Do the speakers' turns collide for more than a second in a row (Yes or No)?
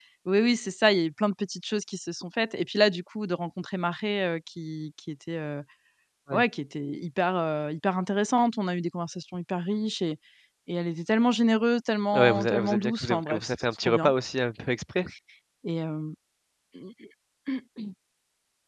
Yes